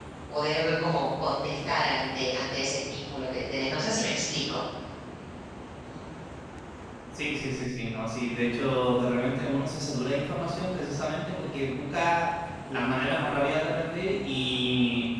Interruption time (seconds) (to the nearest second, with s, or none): none